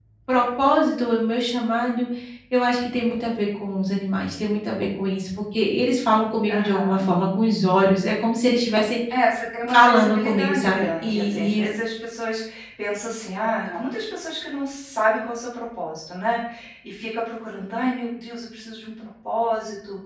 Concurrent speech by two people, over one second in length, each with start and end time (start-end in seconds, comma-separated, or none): 9.7-11.7